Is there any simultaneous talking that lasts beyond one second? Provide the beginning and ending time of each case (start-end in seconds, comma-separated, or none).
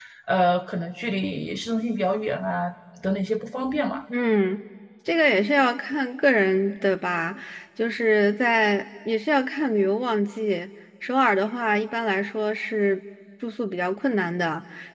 none